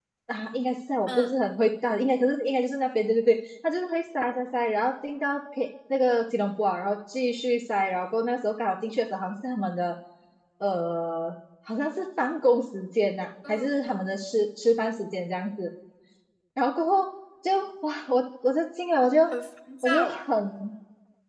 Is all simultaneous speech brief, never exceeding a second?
Yes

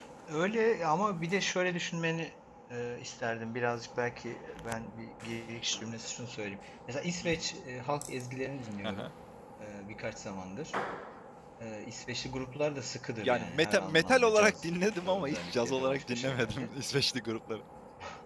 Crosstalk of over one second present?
Yes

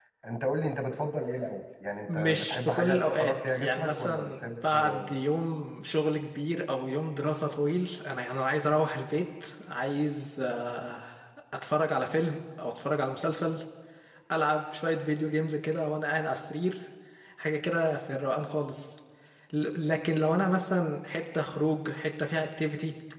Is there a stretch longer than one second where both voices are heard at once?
Yes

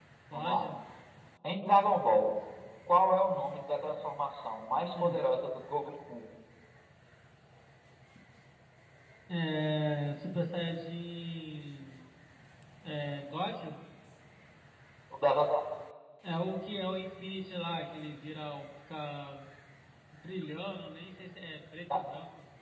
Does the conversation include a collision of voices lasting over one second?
No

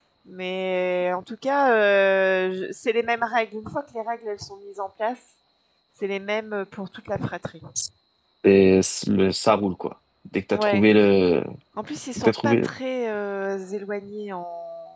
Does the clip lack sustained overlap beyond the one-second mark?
Yes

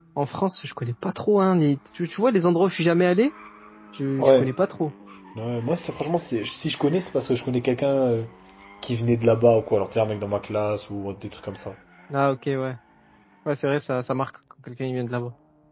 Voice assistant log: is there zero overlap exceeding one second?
Yes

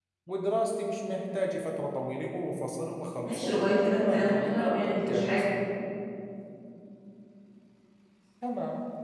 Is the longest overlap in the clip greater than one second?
Yes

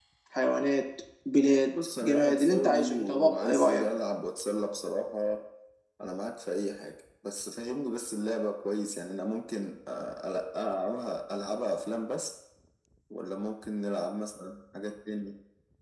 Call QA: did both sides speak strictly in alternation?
No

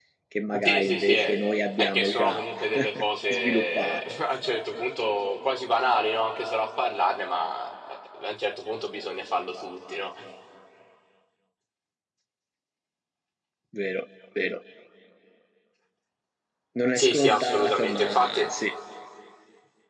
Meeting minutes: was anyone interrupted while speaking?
Yes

